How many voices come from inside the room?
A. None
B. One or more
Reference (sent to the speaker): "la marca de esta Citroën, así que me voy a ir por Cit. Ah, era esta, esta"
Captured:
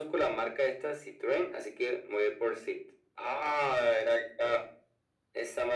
A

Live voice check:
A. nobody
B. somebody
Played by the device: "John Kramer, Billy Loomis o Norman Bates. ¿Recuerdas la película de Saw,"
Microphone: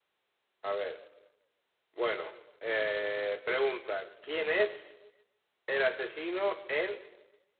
B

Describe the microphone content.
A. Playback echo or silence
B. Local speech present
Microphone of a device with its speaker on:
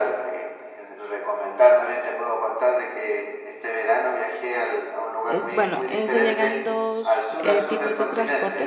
B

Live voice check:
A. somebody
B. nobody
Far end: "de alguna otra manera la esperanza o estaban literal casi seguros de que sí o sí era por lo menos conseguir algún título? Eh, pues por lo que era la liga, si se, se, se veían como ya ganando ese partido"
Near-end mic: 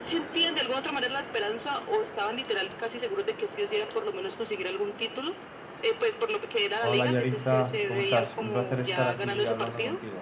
A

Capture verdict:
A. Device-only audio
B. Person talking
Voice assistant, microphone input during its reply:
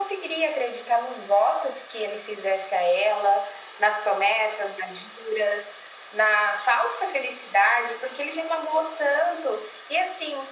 A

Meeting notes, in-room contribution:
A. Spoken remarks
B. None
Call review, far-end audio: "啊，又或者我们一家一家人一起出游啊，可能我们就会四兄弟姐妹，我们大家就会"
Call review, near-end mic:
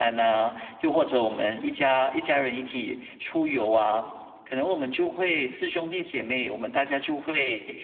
B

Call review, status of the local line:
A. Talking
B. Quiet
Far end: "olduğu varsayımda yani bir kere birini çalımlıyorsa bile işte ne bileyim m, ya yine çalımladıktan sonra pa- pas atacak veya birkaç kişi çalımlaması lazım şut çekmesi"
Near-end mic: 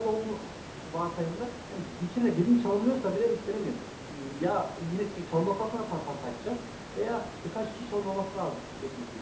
B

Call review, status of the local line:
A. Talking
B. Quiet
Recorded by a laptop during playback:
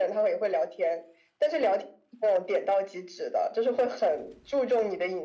B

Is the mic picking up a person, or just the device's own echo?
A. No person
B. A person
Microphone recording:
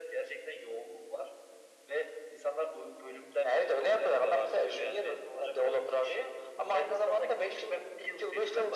A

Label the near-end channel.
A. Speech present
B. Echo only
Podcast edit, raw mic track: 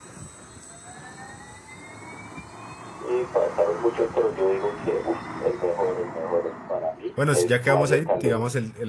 A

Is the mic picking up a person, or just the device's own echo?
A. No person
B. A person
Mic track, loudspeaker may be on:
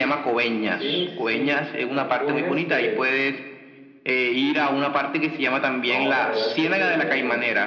B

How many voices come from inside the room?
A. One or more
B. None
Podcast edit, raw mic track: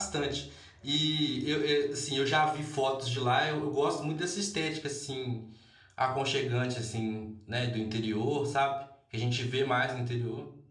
A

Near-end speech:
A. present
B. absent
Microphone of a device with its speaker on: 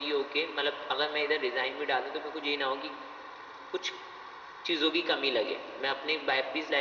B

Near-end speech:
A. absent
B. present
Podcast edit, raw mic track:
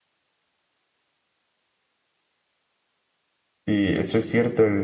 B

